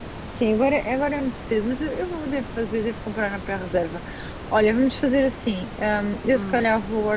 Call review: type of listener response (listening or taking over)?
listening